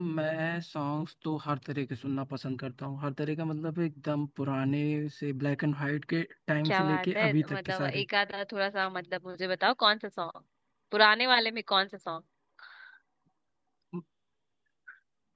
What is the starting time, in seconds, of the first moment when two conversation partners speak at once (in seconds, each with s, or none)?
6.7 s